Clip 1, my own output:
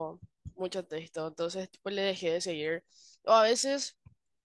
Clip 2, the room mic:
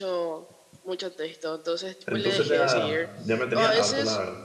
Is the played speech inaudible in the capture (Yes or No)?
No